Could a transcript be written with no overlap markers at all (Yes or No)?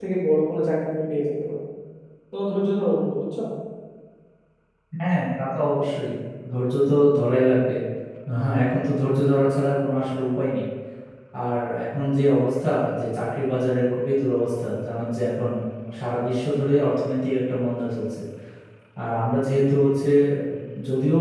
Yes